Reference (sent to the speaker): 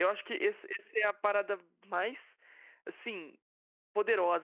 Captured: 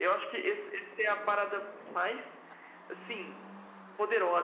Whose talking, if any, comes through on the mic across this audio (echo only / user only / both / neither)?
echo only